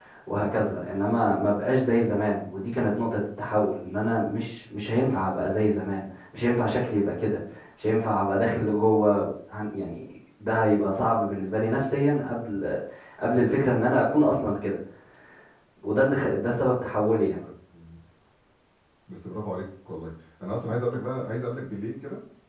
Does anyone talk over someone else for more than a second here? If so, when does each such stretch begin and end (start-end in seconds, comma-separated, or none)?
none